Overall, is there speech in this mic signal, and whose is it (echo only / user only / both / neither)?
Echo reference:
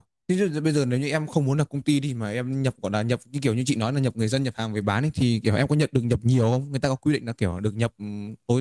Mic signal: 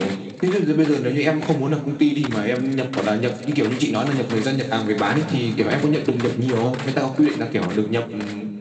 echo only